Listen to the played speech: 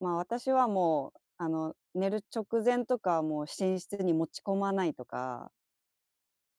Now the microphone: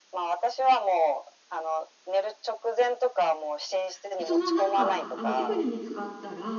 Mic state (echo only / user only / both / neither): both